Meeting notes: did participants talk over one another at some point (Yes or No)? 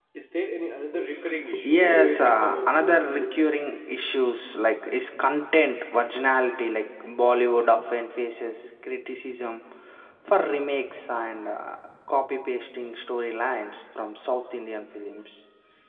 Yes